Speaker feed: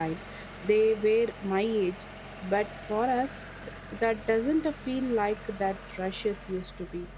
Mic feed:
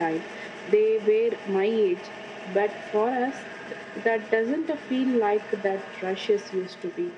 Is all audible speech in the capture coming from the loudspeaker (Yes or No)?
Yes